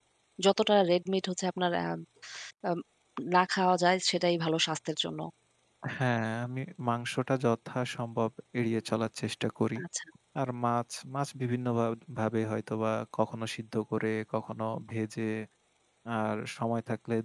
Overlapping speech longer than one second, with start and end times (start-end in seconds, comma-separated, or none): none